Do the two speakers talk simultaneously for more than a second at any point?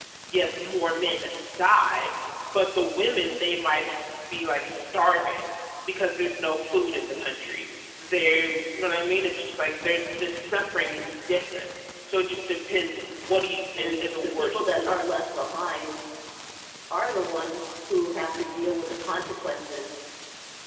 Yes, from 13.7 s

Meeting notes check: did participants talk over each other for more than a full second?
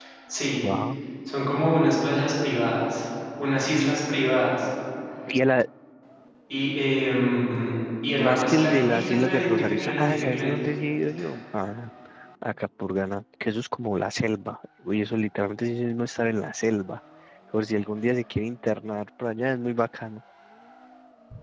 Yes, from 8.2 s

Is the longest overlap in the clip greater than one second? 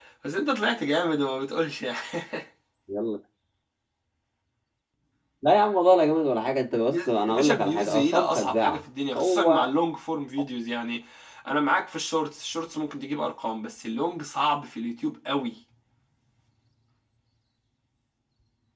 Yes, from 6.9 s

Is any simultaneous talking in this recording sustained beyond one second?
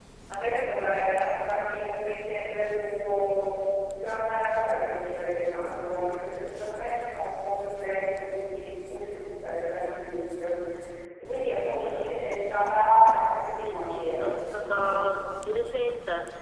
Yes, from 13.6 s

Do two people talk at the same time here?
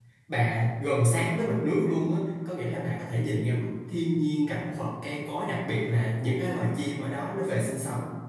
No

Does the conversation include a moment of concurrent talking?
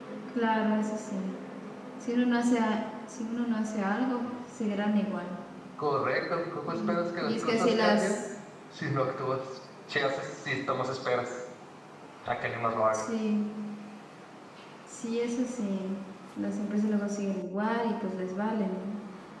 Yes, from 6.7 s

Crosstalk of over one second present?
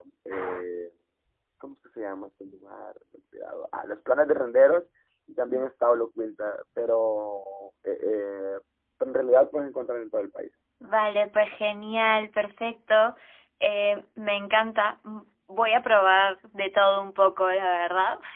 No

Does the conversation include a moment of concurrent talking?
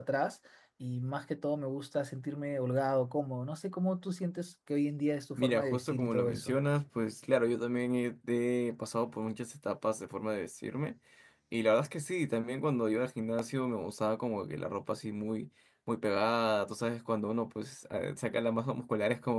Yes, from 5.3 s

